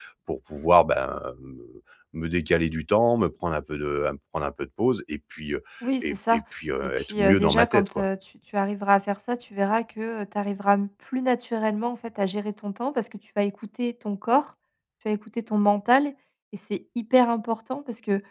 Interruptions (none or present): present